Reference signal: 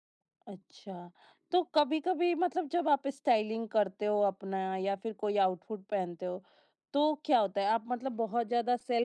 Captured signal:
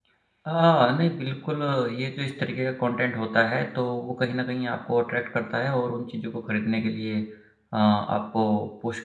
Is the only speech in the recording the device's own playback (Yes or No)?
No